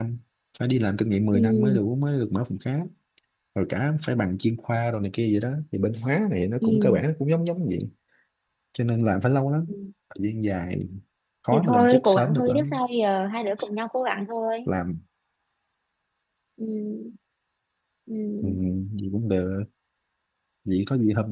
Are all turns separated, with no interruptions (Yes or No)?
No